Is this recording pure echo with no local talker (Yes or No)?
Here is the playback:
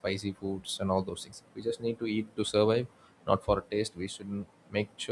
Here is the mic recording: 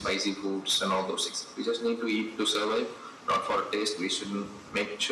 Yes